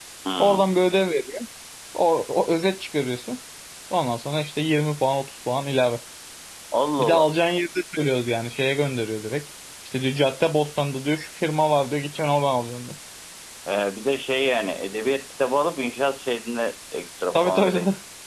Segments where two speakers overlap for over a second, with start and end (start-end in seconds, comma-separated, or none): none